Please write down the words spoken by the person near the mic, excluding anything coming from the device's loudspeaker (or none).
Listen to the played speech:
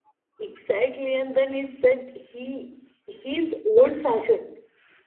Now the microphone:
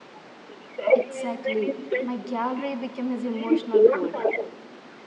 Exactly. My gallery became his emotional folder.